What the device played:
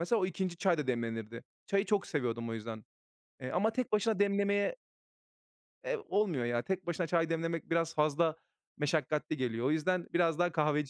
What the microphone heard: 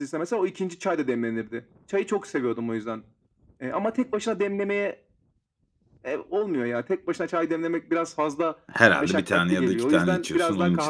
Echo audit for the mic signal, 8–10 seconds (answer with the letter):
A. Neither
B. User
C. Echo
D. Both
D